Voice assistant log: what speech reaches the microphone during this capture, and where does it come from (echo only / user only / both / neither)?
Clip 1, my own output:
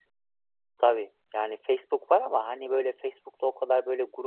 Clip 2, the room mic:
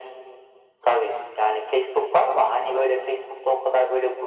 echo only